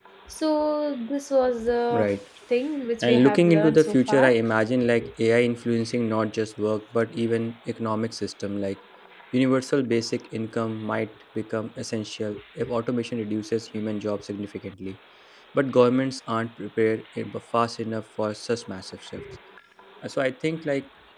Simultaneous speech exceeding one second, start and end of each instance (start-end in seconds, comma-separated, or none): 3.0-4.3